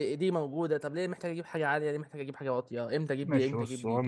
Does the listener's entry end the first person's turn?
Yes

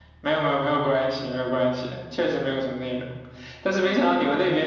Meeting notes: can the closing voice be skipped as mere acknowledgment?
Yes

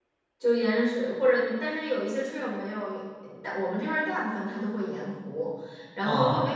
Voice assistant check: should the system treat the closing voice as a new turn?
No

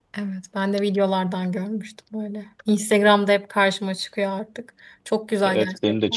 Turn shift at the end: Yes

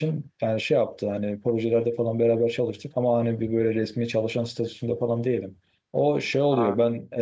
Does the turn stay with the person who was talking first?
Yes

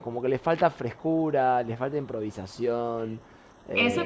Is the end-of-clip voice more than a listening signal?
Yes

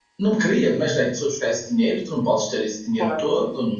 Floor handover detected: No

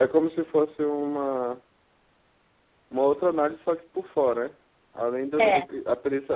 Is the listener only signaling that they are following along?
Yes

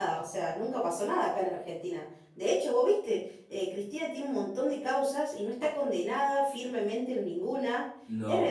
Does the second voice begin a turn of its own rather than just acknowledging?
No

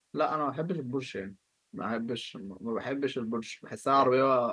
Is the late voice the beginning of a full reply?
No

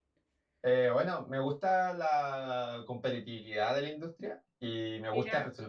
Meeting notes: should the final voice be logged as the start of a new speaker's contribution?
No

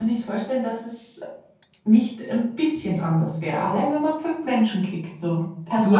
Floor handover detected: Yes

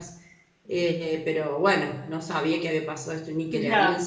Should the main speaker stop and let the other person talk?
Yes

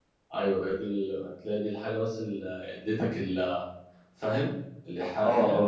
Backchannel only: No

